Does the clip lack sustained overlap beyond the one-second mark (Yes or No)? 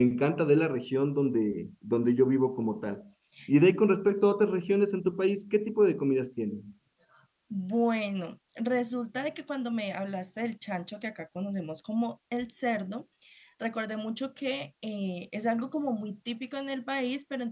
Yes